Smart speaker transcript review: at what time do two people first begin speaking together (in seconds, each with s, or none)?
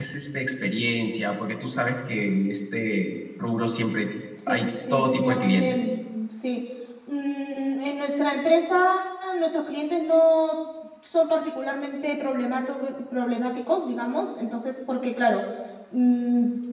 4.4 s